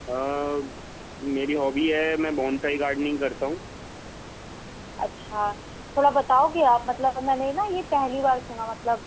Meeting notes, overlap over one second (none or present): none